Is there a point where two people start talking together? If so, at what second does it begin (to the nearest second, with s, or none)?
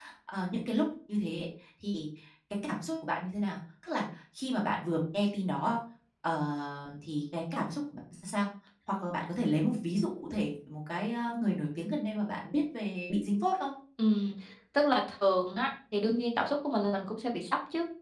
none